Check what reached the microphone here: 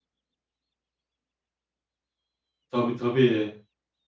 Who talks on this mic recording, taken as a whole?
user only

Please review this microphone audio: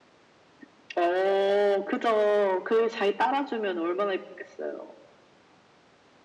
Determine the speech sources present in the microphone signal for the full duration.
echo only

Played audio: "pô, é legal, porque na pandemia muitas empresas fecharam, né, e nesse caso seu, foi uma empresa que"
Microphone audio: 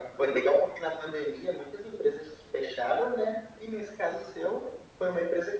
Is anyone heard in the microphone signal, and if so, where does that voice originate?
echo only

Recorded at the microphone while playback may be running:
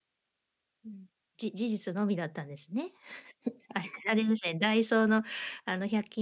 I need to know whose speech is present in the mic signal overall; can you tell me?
user only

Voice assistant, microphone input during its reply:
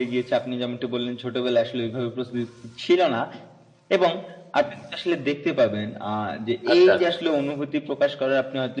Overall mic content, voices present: both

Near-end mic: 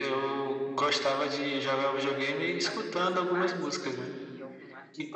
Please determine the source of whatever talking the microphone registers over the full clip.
both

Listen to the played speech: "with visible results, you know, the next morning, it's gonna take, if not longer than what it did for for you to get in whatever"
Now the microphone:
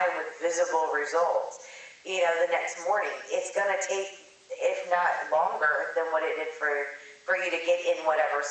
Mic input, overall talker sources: echo only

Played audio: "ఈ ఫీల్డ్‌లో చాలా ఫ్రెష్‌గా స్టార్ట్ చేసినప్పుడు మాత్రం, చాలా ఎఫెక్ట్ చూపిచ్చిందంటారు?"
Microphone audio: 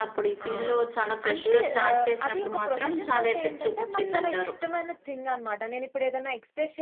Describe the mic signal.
both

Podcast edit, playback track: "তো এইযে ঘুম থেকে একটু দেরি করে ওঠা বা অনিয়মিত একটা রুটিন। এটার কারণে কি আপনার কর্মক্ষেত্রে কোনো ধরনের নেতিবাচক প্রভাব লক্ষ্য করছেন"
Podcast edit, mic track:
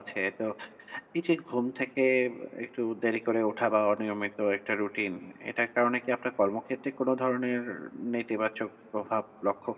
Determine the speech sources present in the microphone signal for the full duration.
echo only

